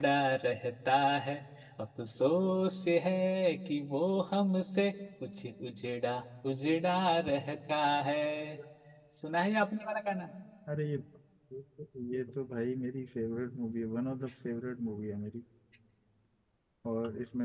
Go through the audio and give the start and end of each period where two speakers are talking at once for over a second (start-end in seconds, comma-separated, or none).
none